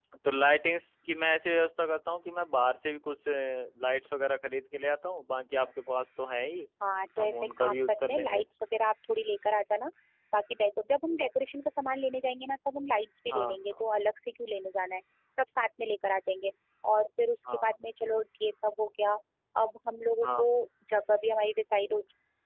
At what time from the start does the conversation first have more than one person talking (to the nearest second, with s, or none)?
7 s